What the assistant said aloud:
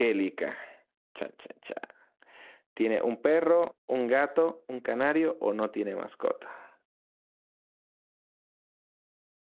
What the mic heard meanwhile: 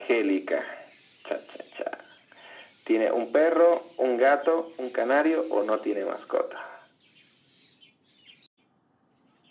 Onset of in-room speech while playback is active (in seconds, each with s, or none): none